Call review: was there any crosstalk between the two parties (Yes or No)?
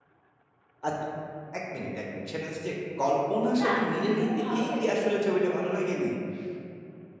Yes